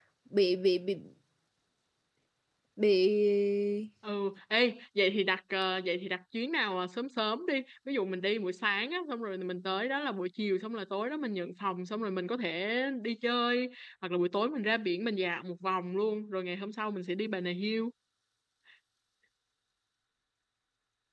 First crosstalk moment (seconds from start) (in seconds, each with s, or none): none